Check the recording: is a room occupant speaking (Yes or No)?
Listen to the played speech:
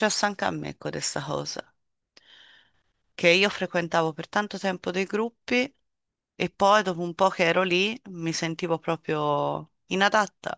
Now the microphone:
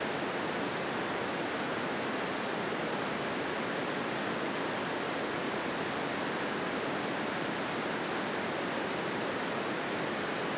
No